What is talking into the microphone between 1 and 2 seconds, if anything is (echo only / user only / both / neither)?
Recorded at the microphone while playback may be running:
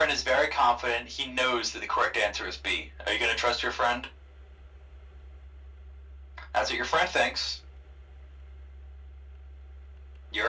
echo only